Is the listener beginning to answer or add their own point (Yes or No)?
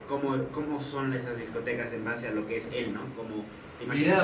Yes